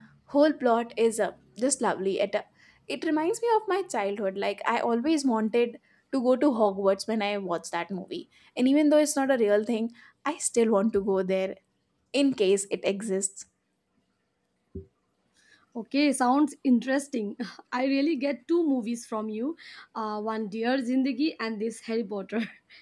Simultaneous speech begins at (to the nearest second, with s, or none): none